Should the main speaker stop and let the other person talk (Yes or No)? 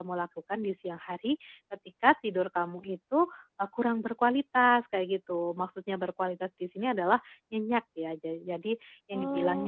No